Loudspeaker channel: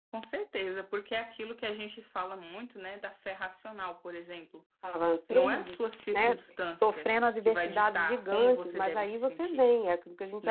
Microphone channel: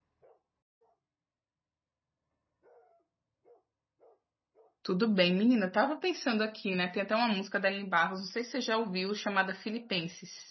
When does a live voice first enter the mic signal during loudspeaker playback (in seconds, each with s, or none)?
4.8 s